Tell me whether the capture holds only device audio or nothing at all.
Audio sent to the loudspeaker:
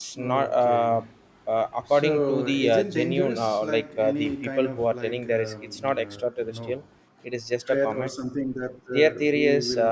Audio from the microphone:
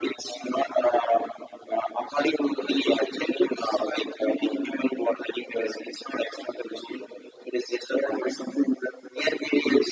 Yes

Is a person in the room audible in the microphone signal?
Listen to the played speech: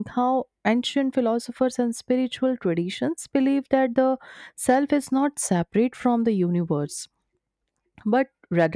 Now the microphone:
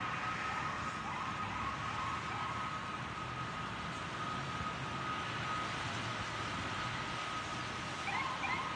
No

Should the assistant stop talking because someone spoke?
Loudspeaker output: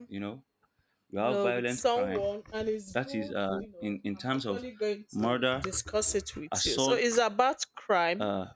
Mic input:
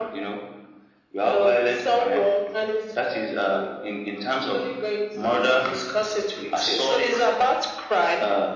No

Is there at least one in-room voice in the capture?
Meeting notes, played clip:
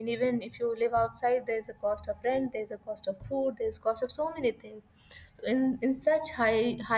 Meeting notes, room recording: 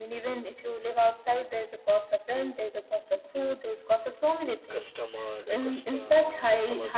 Yes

